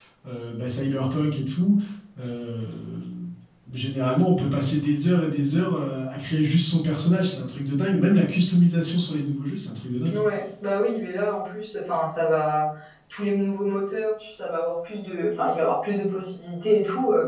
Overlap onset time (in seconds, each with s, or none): none